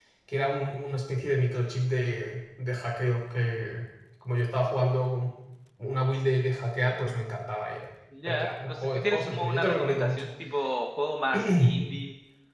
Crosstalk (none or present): present